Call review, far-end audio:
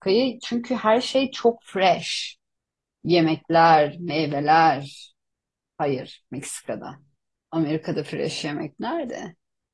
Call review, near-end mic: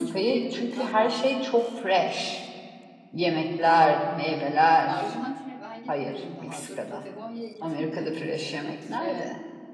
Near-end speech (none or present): present